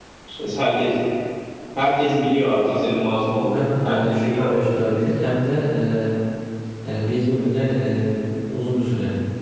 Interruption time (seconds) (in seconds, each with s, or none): 3.4 s